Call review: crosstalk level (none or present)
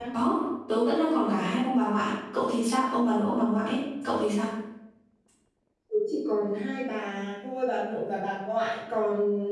none